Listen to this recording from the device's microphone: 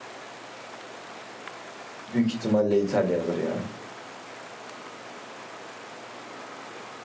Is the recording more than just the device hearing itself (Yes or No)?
Yes